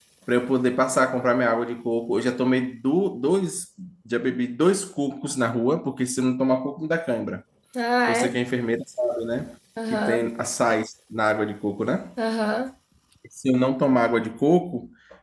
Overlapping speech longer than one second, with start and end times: none

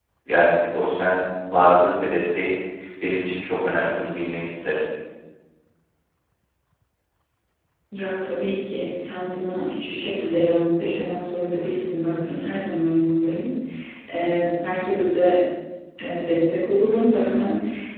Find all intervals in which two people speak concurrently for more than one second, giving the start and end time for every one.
none

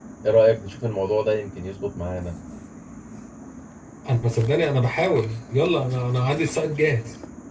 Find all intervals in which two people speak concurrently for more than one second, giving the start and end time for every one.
none

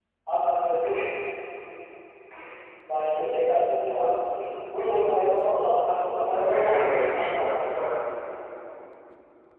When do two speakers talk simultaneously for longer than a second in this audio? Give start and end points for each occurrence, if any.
6.3-7.6

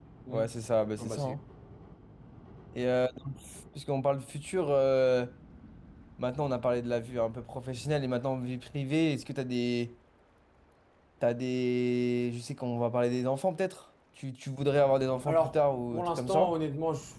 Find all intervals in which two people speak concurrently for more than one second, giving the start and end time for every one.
15.3-16.5

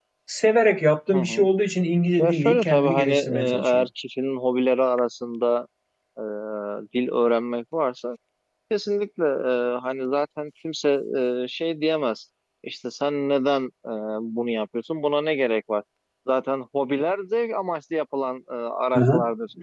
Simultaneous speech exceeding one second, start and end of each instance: 2.2-3.9

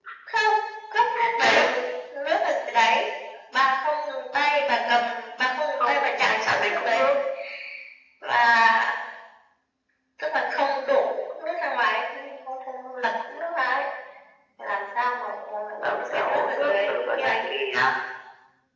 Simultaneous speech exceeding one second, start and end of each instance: 5.8-7.0, 15.8-17.4

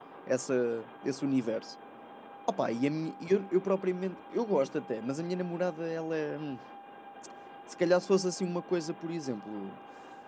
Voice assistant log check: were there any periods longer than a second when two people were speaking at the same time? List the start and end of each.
none

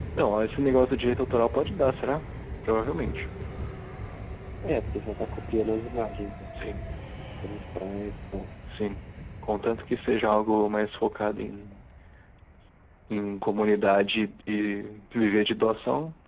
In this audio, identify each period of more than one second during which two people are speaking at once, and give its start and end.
none

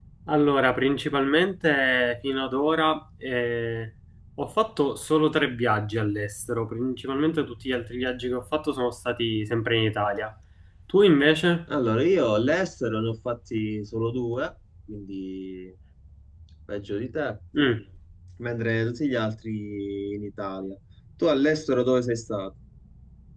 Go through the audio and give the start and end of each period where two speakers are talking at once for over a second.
none

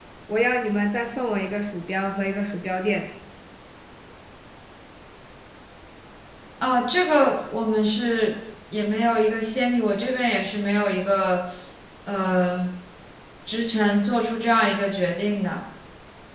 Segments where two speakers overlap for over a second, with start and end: none

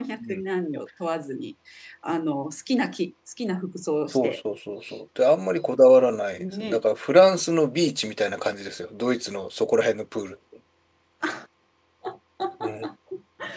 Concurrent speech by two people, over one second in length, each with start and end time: none

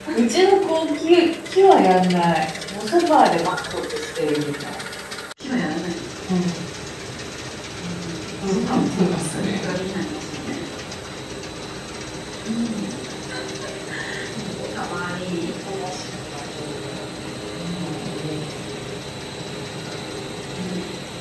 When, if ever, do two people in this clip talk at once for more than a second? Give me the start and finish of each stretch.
8.4-9.7

